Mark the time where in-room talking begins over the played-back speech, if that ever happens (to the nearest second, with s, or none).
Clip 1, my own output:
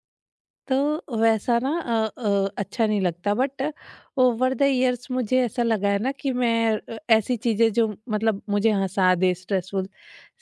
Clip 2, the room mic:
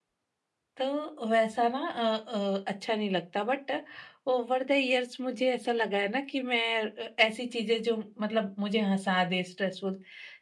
none